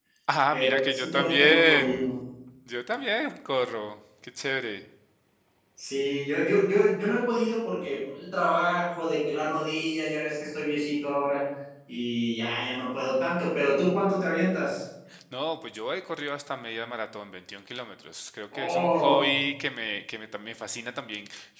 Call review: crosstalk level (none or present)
present